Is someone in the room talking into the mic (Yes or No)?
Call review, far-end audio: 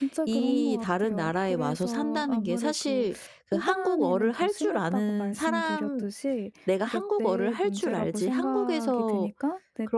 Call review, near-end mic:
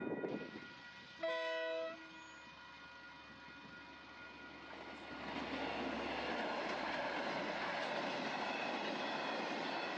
No